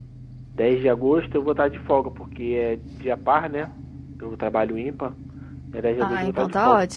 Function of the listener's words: taking over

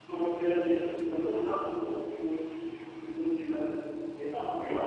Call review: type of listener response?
listening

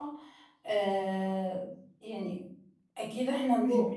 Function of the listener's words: listening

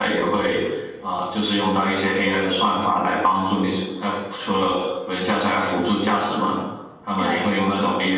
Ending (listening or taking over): listening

